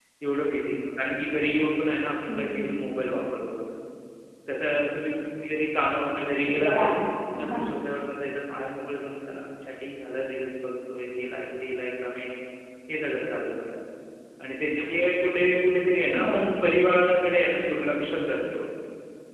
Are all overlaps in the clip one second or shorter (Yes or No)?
Yes